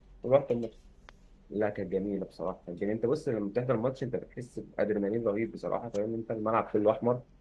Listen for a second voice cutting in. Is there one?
No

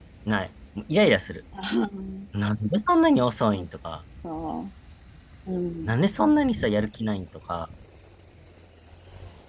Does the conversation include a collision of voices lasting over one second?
No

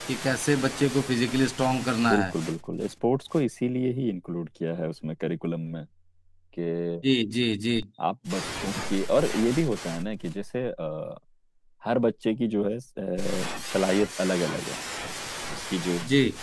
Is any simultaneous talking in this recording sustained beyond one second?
No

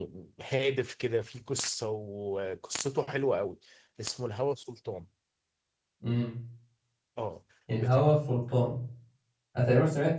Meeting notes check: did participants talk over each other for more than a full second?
No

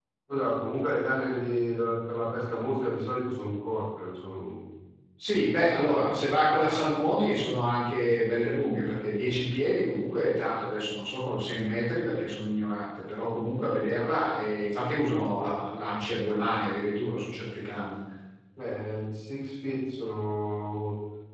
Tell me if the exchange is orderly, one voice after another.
Yes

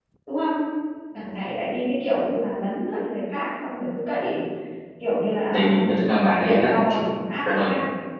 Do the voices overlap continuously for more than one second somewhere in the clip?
Yes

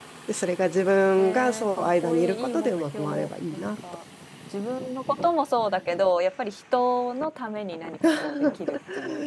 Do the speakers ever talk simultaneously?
Yes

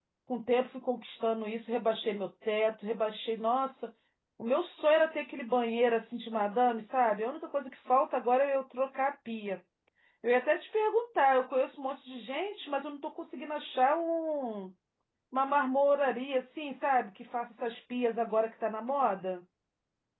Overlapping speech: No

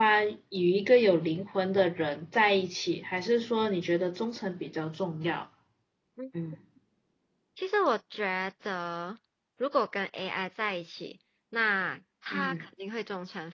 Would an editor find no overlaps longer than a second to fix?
Yes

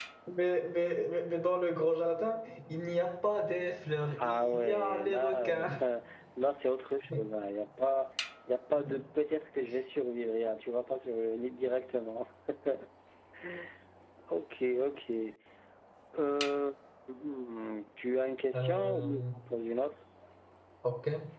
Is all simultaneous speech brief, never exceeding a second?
No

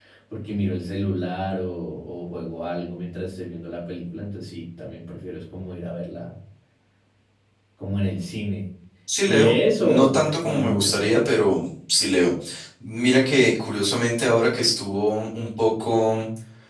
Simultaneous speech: Yes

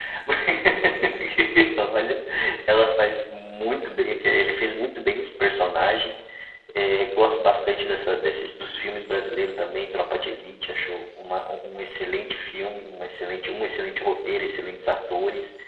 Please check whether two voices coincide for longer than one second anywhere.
No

